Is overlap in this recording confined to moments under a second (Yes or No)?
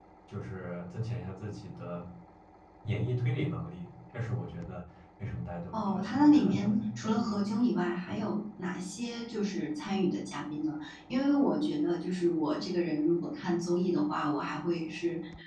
No